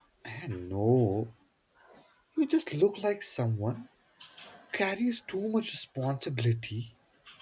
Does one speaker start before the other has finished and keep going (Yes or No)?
No